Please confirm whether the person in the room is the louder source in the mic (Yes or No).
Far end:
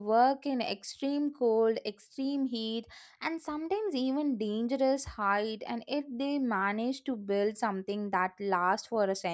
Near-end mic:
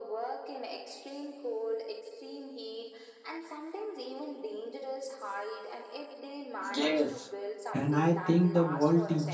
Yes